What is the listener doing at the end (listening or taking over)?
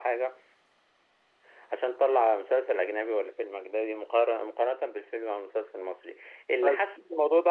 listening